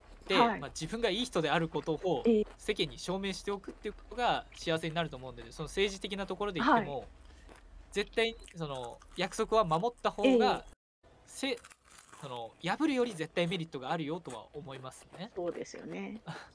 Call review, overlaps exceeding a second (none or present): none